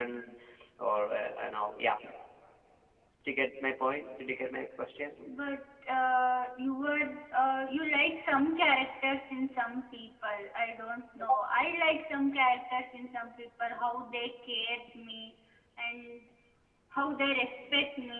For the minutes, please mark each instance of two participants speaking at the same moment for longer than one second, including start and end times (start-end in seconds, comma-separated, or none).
none